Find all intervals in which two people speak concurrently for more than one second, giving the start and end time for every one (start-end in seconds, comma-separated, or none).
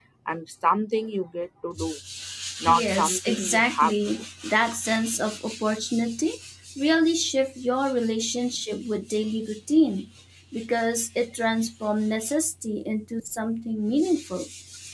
2.7-4.1